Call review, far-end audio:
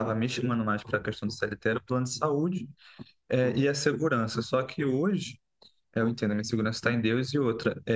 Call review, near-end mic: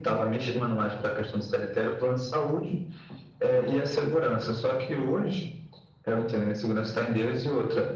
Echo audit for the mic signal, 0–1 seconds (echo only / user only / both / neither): echo only